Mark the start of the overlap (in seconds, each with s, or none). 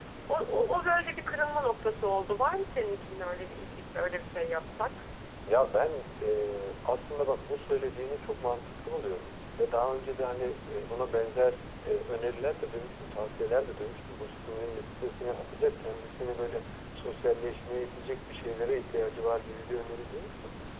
none